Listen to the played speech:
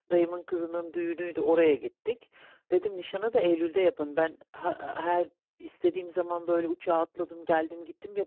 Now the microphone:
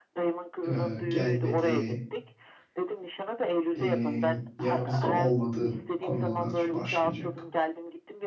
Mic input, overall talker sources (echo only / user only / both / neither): both